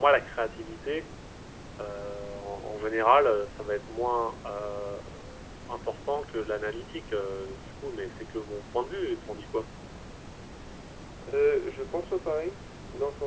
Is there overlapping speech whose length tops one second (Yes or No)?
No